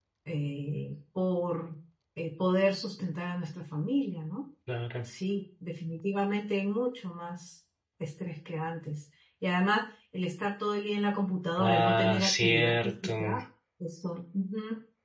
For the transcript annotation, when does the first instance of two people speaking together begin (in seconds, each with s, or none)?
11.6 s